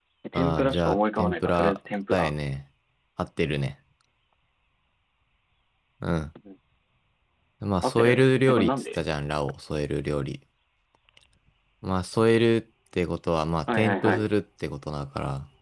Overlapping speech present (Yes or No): Yes